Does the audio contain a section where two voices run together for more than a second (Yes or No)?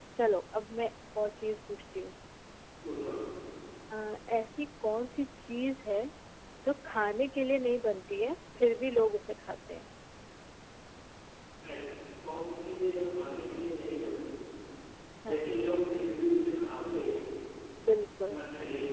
No